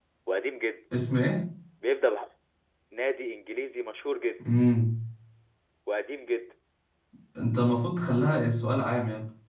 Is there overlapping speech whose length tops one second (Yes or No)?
No